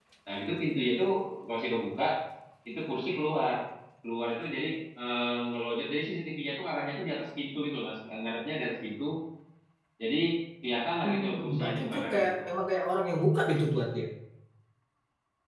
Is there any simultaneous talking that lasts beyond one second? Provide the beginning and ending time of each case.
11.0-12.4

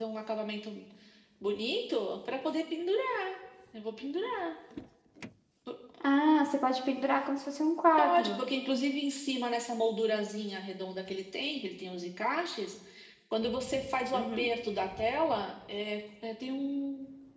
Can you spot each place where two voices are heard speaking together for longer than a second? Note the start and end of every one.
none

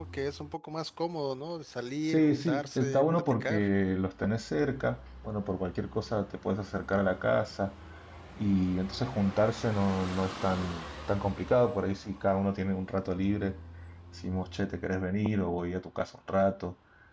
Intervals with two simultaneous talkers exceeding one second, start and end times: 2.0-3.6

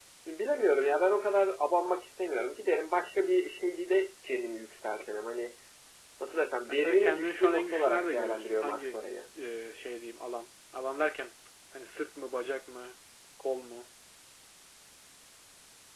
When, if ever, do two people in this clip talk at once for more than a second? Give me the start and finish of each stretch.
6.7-9.2

